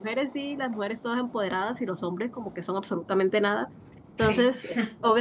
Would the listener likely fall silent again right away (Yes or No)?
Yes